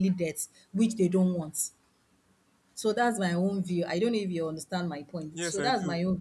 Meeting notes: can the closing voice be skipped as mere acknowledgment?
No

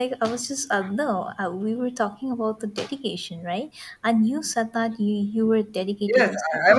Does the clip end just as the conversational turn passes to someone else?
Yes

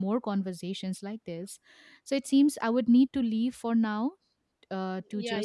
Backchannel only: No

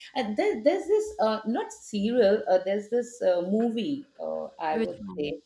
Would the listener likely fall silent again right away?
Yes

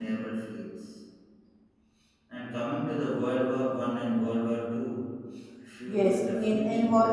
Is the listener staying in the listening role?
No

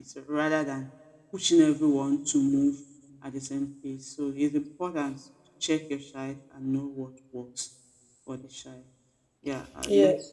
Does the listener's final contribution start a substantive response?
Yes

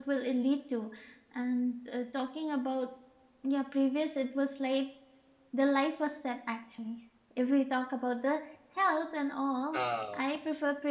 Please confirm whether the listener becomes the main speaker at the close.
No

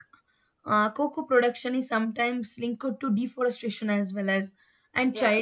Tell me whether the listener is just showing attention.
Yes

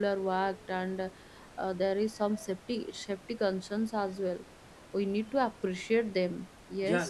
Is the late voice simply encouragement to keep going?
No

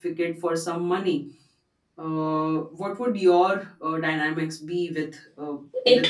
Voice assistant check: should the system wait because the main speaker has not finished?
No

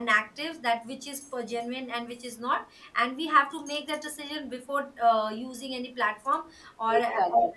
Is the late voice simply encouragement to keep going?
Yes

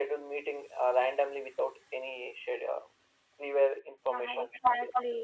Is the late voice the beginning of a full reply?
Yes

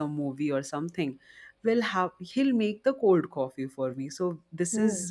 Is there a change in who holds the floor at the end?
No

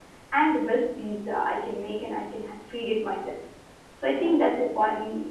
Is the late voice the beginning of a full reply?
No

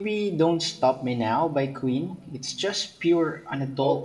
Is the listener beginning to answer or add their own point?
Yes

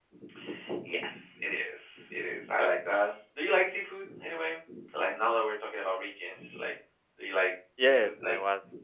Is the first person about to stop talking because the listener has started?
Yes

